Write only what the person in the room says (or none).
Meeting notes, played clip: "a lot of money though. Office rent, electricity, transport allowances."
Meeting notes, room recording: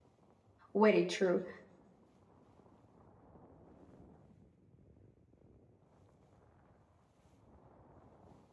Very true.